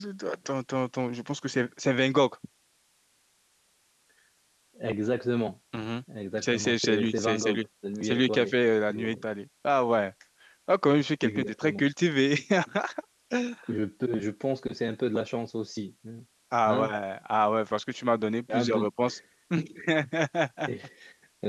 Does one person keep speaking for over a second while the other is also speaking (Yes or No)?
Yes